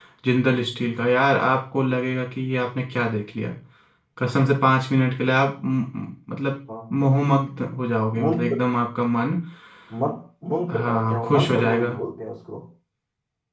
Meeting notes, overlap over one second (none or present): present